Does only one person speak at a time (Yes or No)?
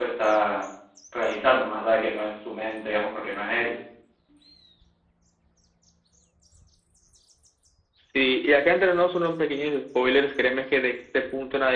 Yes